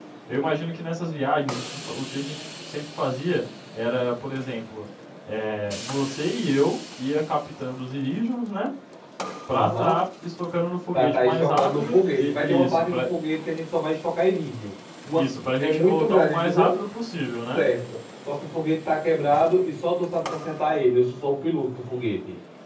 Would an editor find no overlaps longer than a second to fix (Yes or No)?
No